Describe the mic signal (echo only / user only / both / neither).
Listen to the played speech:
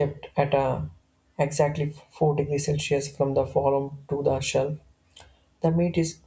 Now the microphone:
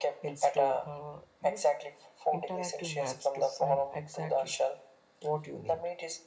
both